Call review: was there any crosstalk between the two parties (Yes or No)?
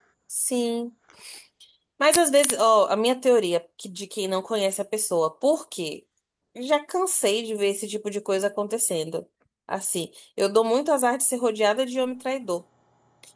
No